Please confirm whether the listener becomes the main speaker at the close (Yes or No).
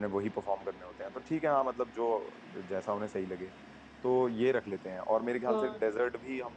No